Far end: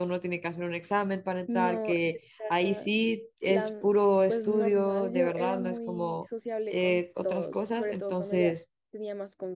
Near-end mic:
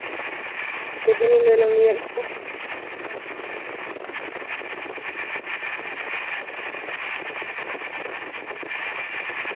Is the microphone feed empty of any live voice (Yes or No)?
No